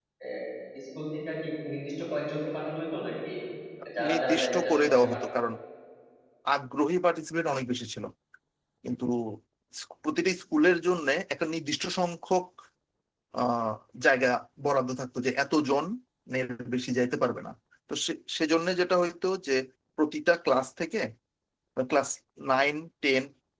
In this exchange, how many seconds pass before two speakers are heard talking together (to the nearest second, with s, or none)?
4 s